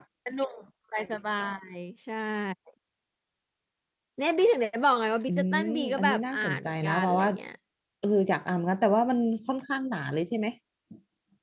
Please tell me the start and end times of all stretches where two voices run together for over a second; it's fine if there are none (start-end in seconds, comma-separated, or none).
5.3-7.3